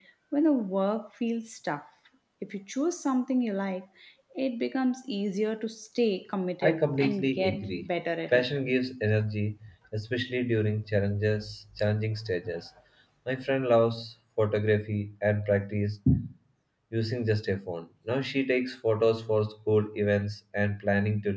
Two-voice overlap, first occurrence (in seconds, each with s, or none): 6.6 s